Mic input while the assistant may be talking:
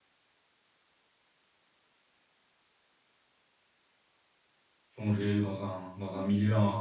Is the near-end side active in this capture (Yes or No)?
Yes